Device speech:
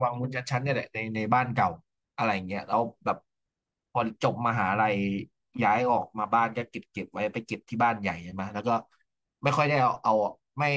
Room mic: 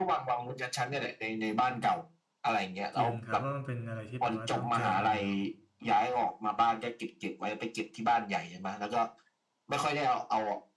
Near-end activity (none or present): present